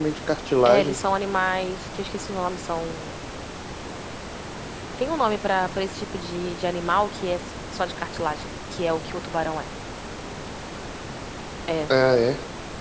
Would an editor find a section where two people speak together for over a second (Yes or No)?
No